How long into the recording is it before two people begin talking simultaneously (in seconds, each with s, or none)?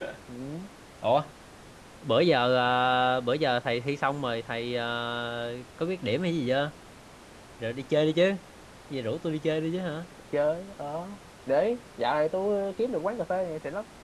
none